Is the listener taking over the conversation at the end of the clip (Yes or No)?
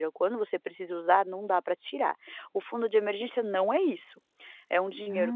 No